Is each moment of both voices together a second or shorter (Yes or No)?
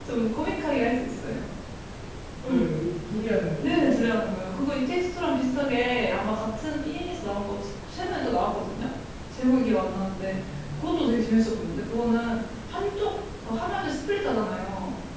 Yes